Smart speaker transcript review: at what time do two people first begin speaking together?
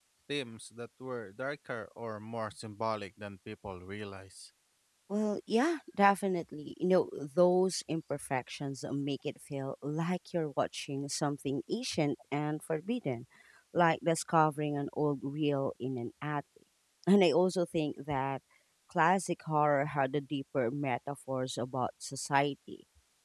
none

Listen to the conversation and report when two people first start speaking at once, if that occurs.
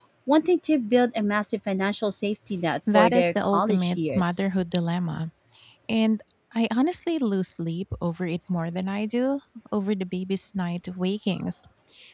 2.9 s

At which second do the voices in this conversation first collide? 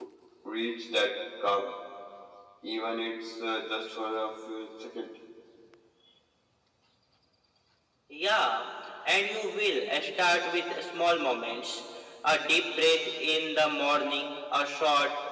none

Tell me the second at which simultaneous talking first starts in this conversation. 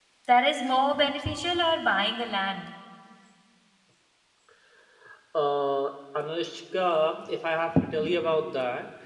none

